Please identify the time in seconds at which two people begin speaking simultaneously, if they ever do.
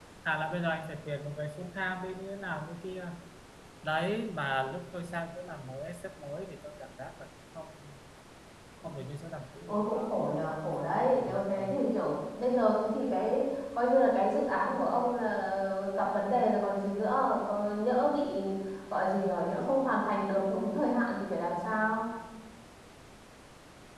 10 s

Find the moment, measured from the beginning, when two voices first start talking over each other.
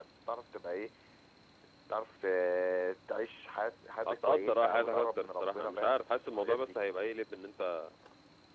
4 s

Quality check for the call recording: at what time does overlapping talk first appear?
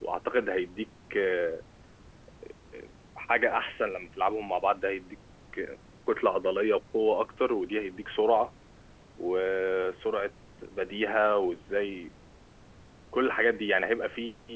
none

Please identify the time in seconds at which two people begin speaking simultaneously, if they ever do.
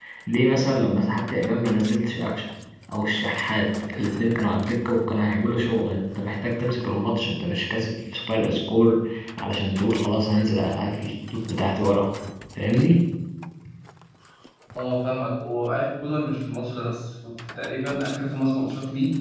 none

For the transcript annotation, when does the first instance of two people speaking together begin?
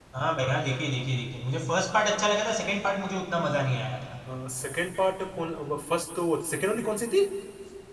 none

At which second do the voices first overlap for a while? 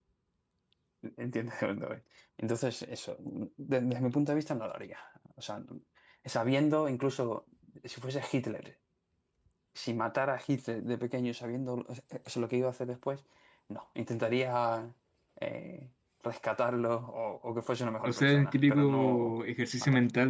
18 s

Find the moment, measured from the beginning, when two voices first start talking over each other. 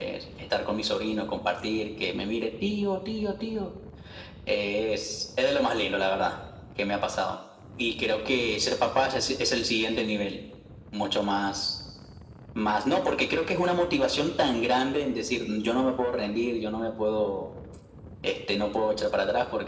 none

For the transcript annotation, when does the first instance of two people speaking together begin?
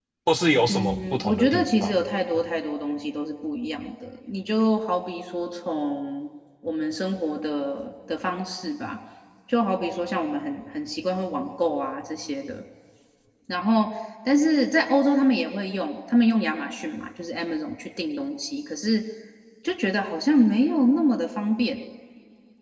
1 s

